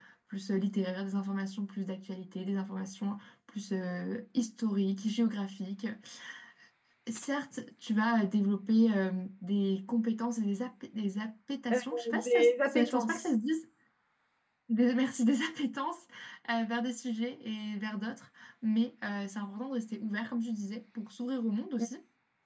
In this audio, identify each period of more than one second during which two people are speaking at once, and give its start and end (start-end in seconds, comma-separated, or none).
11.7-13.3